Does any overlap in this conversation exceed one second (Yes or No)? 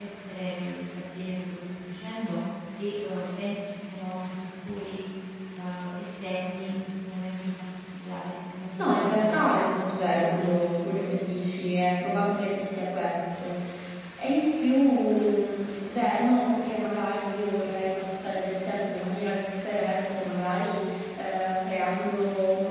Yes